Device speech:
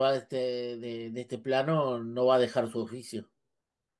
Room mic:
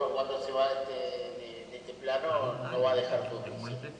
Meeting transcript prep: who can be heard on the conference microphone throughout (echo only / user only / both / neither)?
both